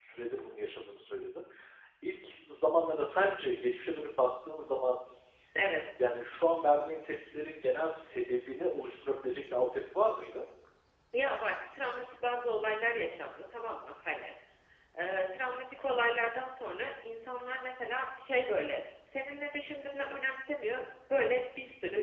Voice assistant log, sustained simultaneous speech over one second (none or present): none